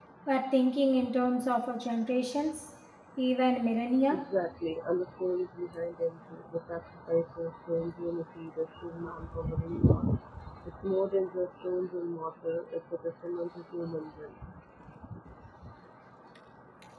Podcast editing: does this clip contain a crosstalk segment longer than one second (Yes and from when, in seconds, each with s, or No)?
No